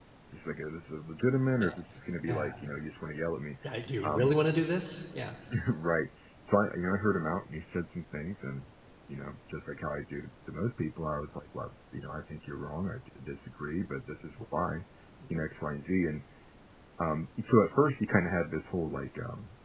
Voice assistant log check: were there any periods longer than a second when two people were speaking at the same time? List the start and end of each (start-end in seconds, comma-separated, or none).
none